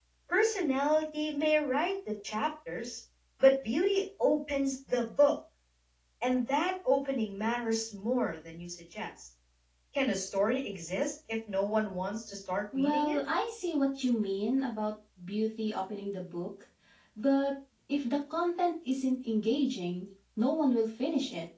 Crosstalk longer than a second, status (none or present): none